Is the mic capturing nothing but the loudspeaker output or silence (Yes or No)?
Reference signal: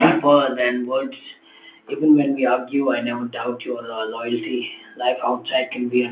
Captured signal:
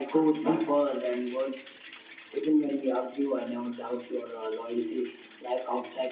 Yes